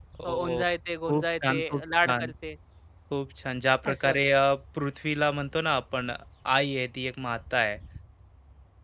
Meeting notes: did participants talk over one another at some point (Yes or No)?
Yes